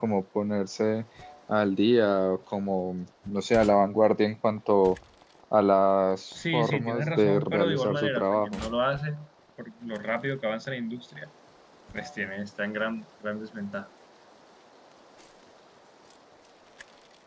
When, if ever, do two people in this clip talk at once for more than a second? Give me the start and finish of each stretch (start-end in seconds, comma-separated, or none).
6.4-8.6